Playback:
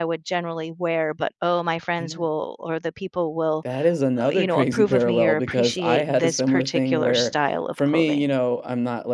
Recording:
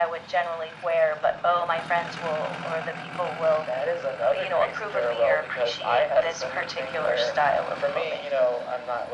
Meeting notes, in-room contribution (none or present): none